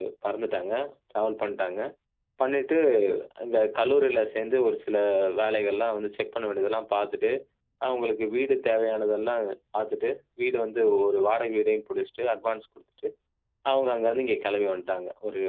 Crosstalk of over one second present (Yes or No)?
No